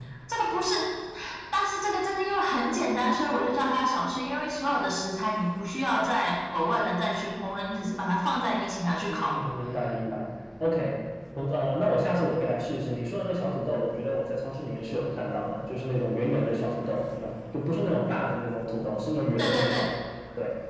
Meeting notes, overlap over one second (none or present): none